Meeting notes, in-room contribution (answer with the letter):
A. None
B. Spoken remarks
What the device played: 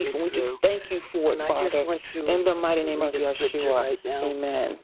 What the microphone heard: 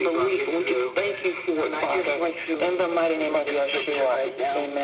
A